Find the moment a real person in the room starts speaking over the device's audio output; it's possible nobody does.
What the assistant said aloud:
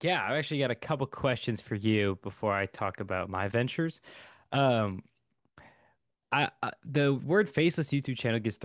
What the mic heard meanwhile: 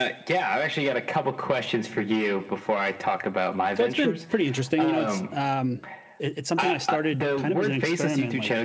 3.8 s

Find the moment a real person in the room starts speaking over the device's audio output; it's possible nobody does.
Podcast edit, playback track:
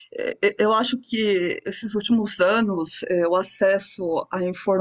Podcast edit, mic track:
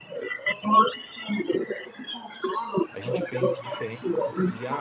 2.9 s

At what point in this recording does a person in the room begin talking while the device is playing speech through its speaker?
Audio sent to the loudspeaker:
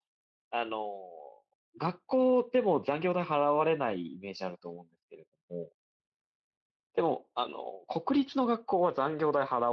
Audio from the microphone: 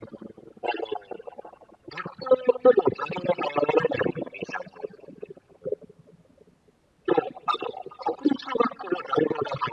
none

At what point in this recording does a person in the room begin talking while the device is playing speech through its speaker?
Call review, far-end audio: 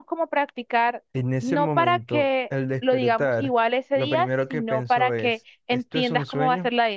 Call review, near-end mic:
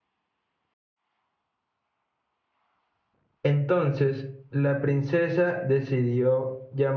3.4 s

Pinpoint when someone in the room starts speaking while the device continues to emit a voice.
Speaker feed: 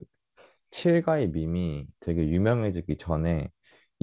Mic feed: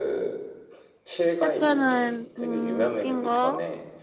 1.4 s

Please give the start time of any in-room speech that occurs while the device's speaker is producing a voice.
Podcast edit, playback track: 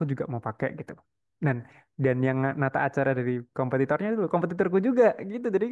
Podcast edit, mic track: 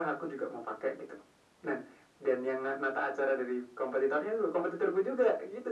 none

